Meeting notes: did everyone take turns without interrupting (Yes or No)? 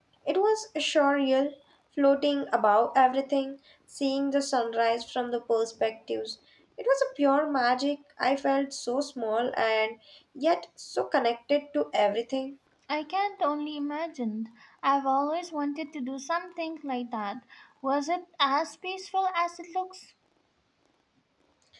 Yes